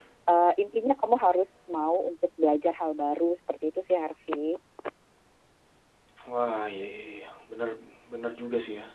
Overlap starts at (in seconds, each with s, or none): none